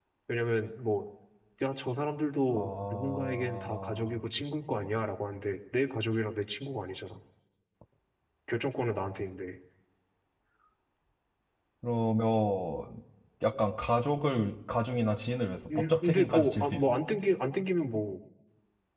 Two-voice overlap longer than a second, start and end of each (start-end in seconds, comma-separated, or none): 2.6-4.2, 15.8-17.0